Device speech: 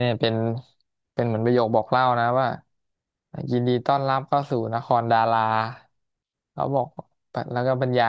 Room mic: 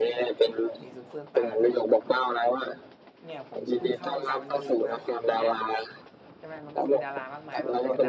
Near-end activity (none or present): present